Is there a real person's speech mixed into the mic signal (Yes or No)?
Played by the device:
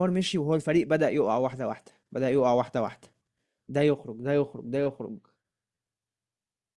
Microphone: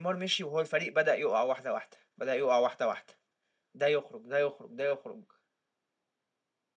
No